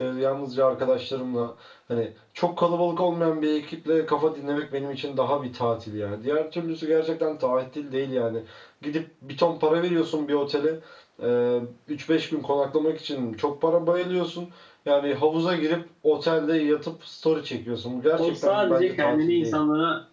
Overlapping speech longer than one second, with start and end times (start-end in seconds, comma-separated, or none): 18.2-19.6